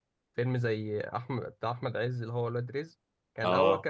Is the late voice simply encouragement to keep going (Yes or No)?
Yes